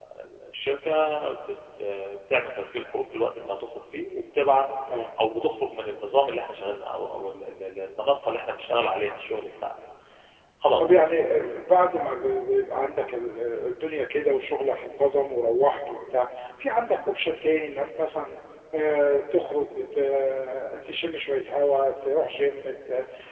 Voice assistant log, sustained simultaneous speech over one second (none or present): none